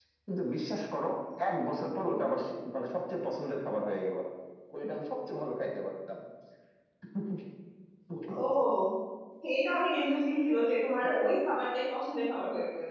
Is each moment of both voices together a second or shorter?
Yes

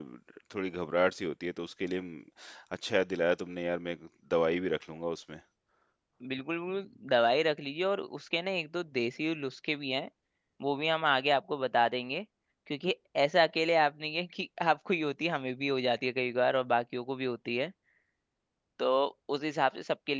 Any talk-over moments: No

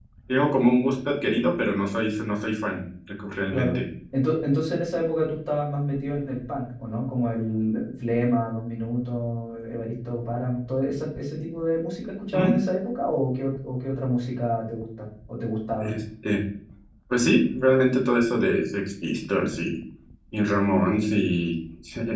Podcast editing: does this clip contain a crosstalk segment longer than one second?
No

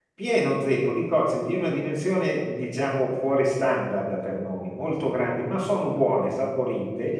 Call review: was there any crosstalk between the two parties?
No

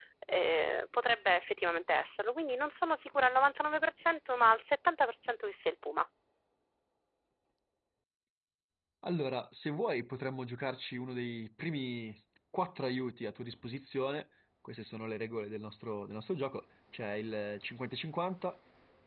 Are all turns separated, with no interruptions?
Yes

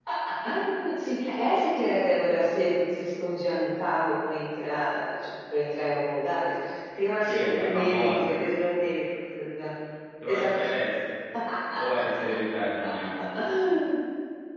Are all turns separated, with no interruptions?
No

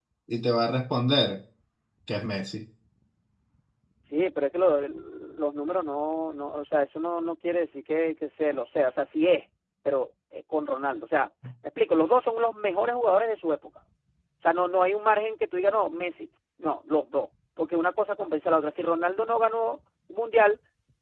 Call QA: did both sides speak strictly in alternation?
Yes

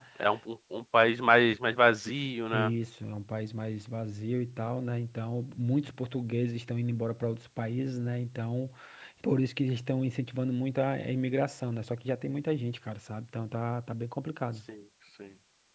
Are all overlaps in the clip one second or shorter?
Yes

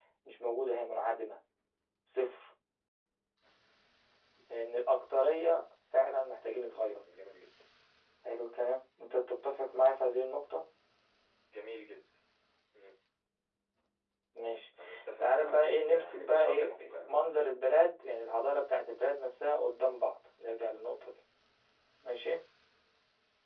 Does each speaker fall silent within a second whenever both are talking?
No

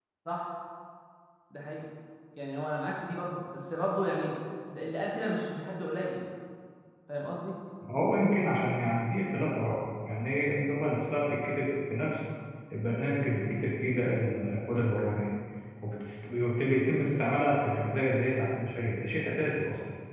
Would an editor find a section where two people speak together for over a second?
No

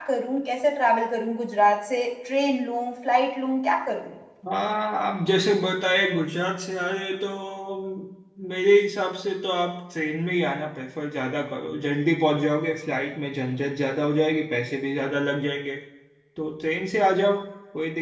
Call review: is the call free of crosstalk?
Yes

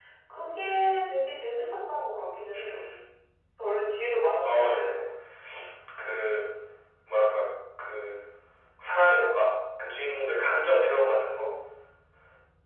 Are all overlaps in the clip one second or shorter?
Yes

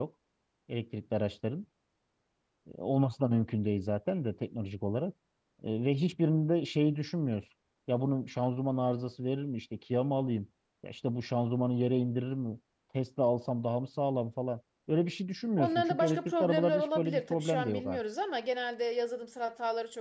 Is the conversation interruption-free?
No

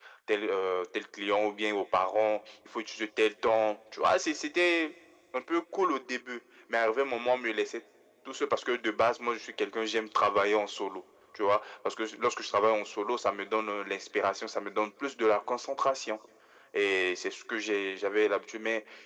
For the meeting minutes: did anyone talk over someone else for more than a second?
No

